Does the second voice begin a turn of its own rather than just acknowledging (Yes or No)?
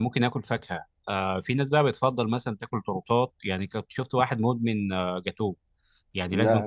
No